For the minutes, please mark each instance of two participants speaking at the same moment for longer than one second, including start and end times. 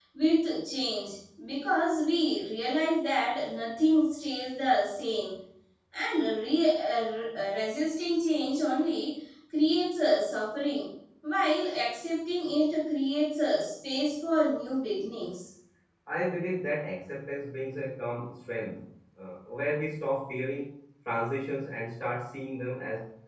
none

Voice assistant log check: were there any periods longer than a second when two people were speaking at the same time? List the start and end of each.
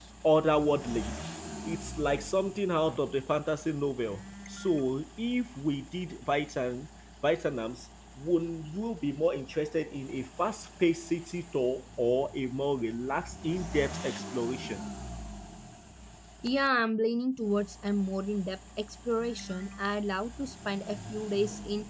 none

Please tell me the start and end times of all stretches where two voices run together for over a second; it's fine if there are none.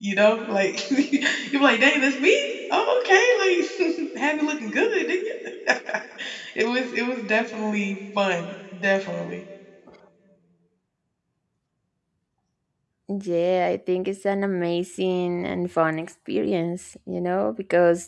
none

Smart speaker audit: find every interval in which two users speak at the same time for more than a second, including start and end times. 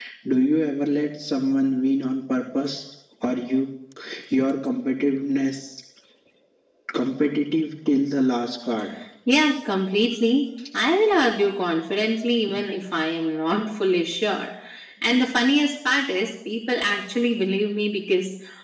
none

